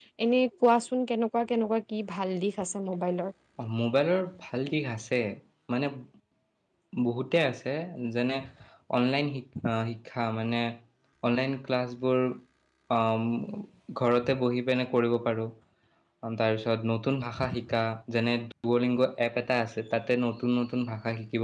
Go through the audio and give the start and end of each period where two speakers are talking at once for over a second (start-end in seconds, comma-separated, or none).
none